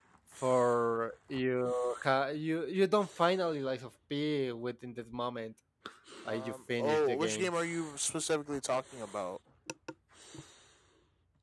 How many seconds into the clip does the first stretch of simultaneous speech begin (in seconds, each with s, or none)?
6.3 s